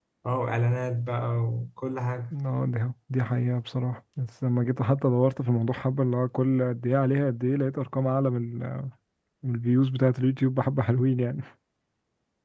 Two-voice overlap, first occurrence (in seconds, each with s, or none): none